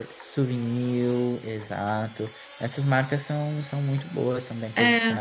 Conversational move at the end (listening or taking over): taking over